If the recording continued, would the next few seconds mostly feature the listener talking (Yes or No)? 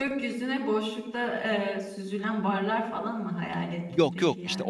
Yes